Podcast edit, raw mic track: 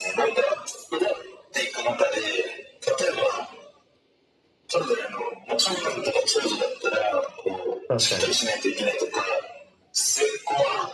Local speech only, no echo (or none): 確かに。